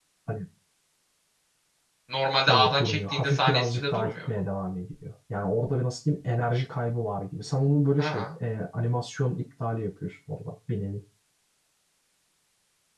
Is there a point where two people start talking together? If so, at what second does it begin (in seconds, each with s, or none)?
2.5 s